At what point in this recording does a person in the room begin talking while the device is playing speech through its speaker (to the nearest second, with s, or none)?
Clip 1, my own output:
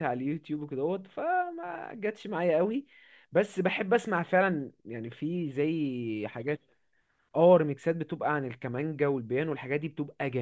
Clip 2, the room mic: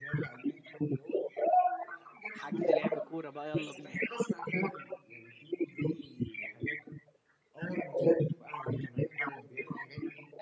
2 s